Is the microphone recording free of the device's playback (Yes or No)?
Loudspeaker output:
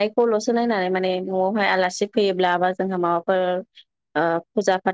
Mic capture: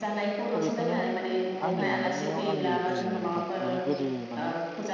No